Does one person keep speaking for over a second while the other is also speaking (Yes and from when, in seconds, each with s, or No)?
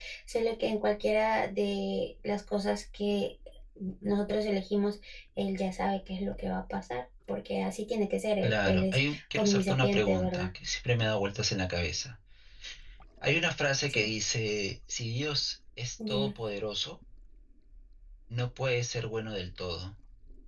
Yes, from 8.4 s